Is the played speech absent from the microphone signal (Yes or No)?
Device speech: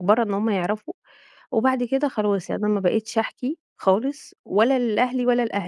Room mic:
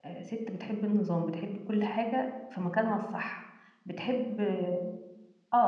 Yes